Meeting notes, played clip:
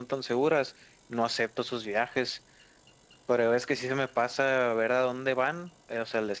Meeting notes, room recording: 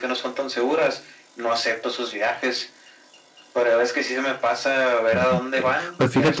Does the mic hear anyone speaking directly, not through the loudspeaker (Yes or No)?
Yes